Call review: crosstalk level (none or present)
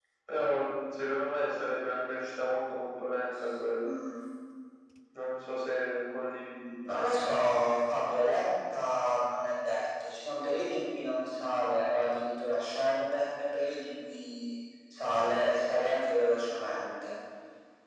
none